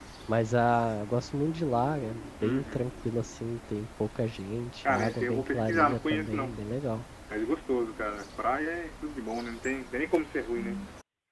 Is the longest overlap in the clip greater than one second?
Yes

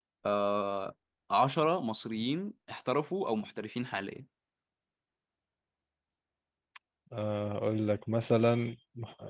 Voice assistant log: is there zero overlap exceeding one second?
Yes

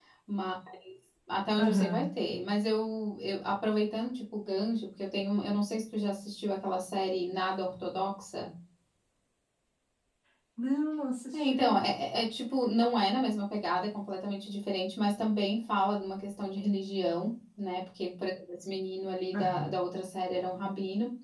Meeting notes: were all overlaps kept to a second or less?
Yes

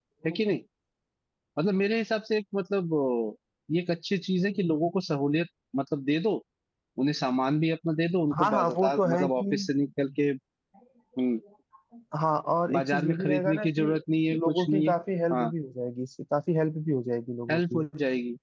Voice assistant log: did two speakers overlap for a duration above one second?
Yes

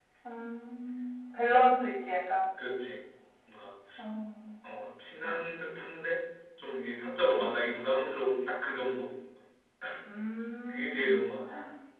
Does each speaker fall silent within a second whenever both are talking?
Yes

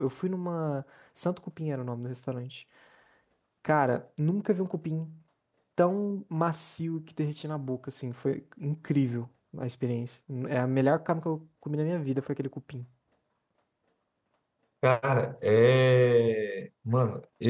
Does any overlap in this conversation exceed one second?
No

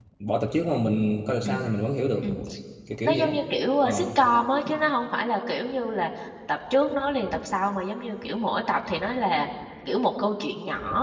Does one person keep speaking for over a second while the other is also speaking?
No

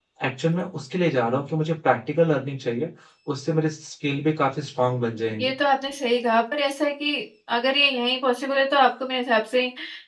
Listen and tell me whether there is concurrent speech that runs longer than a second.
No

